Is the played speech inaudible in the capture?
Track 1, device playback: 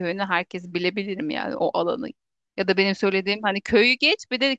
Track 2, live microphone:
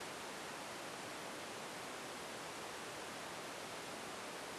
Yes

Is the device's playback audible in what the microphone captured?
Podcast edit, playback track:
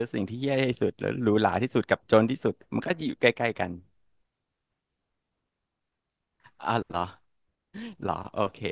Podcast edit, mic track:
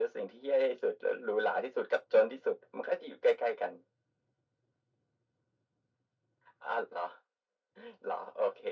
Yes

